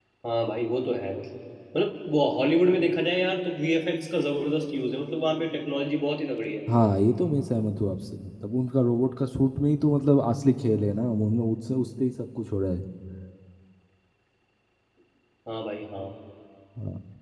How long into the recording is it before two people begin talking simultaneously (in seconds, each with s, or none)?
none